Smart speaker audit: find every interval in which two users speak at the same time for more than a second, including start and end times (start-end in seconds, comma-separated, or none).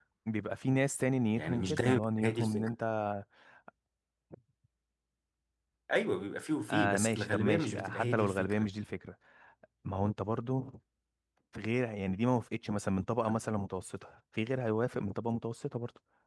1.4-2.7, 6.7-8.7